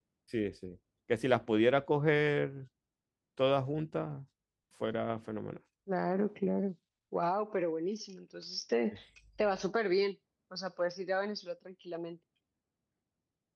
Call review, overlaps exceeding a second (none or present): none